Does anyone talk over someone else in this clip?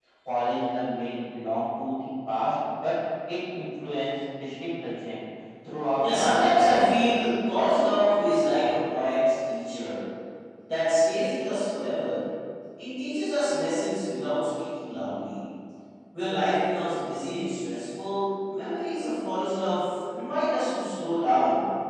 Yes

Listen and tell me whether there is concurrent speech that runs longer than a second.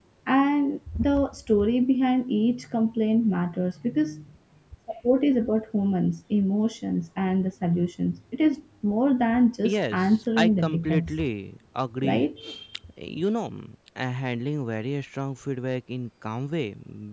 Yes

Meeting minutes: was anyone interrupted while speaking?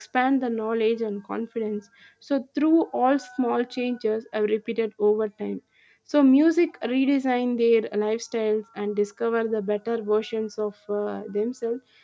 No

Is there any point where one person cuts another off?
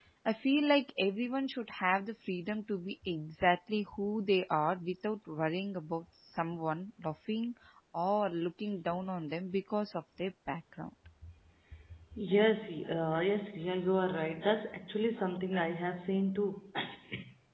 No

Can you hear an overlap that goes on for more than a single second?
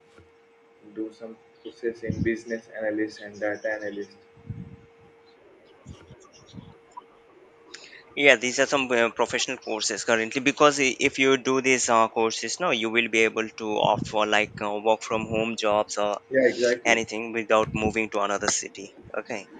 No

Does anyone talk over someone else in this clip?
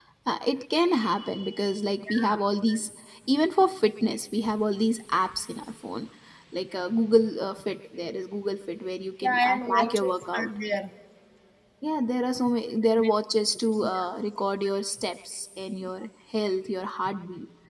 Yes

